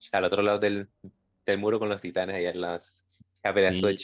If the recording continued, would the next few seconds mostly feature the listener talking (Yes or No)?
Yes